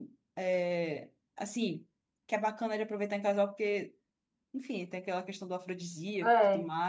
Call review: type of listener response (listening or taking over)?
taking over